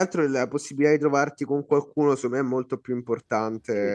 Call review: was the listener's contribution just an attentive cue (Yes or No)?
No